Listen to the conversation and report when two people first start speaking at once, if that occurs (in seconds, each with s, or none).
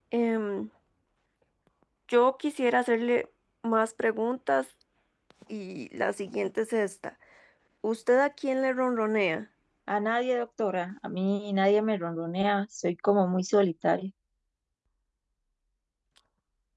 none